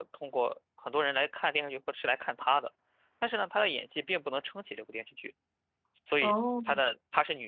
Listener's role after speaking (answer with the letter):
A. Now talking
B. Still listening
B